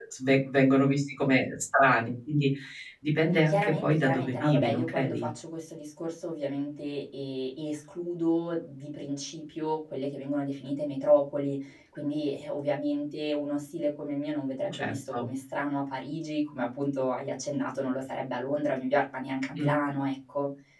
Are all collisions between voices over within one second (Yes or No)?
No